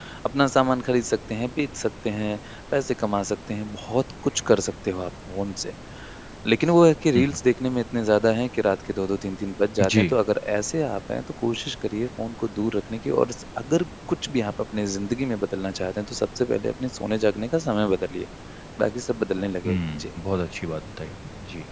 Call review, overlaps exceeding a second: none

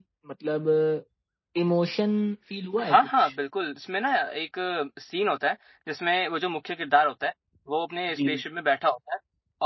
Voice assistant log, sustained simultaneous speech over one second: none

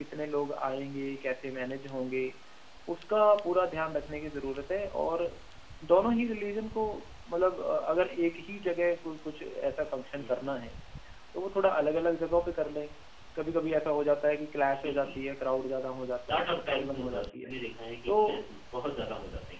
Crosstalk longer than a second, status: present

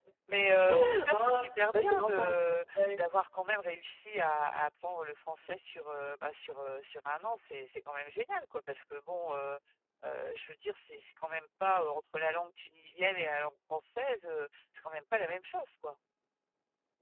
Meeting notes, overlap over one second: present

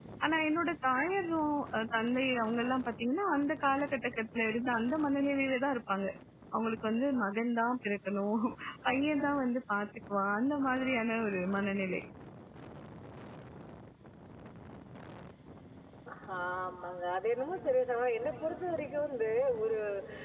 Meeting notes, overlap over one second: none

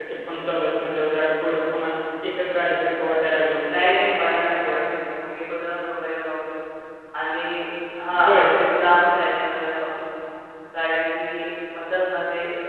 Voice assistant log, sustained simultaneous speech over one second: none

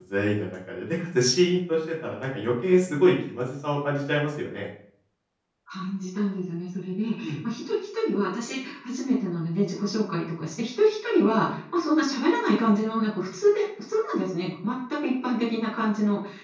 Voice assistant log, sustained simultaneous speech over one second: none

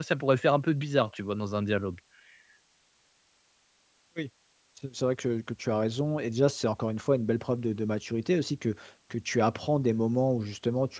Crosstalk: none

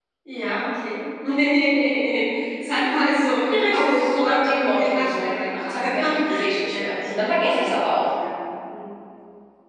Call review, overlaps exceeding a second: present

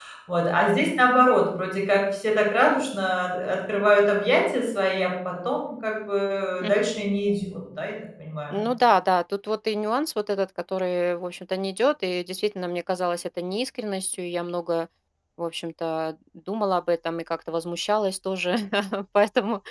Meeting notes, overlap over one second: none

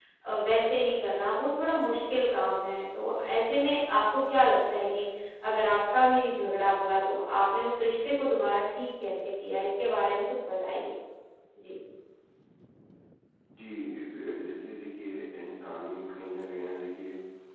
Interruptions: none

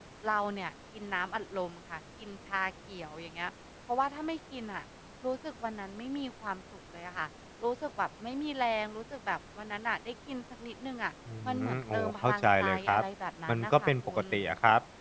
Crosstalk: present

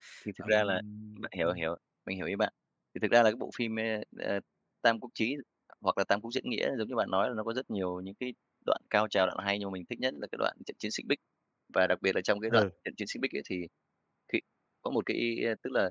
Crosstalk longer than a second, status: none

